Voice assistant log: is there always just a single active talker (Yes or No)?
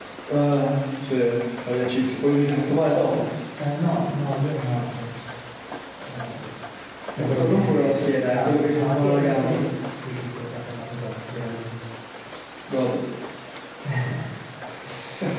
No